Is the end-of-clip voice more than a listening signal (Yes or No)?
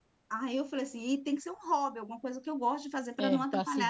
Yes